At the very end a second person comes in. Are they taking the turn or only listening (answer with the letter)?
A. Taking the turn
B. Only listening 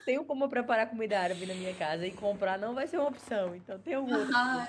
A